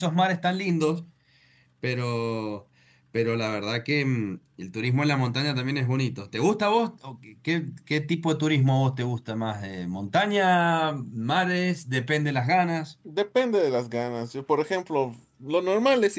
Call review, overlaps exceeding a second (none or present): none